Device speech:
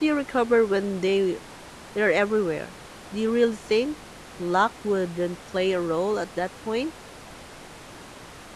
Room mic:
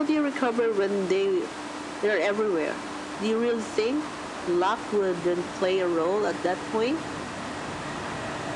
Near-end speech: none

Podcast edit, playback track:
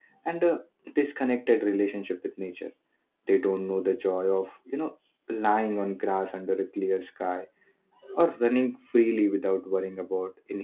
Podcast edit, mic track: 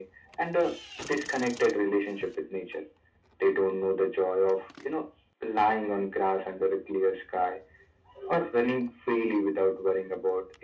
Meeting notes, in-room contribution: none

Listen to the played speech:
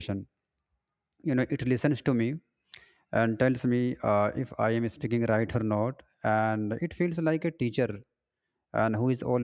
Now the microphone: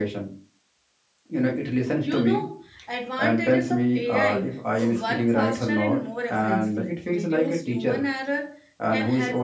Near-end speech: present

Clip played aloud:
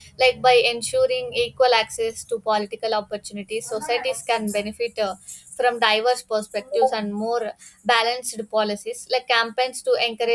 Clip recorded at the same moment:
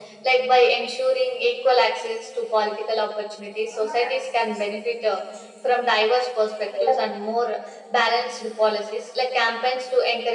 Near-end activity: none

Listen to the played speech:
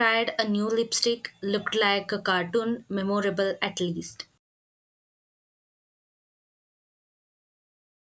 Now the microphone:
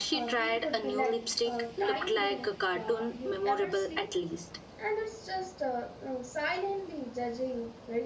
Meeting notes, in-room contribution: present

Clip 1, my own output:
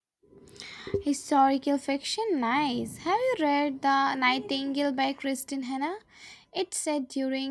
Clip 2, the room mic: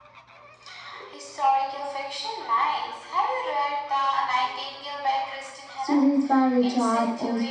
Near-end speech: present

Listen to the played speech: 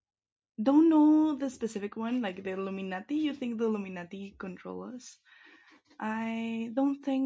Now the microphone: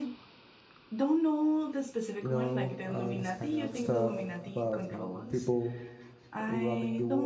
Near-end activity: present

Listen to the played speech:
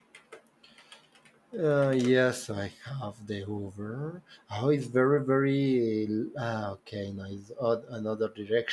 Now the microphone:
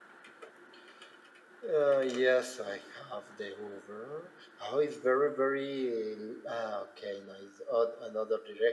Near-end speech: none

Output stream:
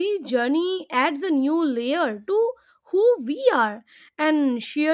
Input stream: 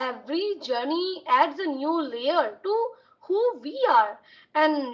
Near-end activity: none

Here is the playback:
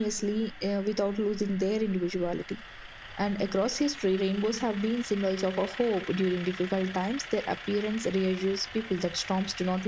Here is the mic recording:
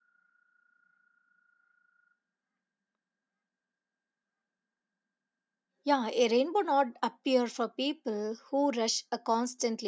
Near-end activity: present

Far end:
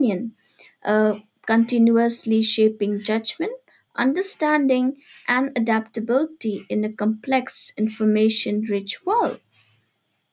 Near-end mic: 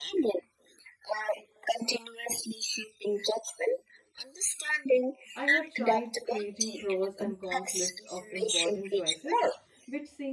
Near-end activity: present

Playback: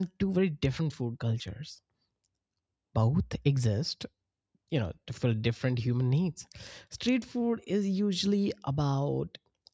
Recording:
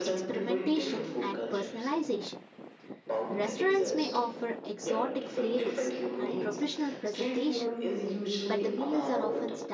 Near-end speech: present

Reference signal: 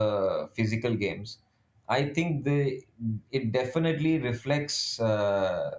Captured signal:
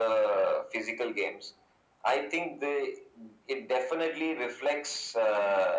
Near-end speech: none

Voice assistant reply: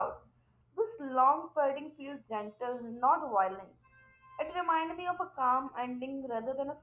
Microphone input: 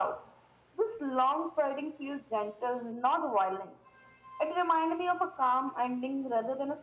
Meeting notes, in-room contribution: none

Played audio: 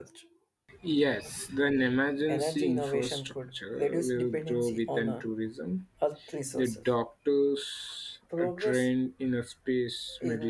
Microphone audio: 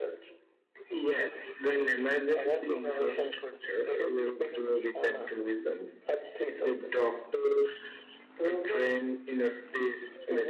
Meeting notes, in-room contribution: none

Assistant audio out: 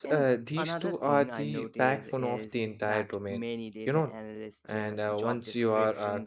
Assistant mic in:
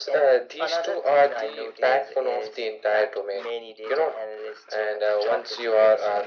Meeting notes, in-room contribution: none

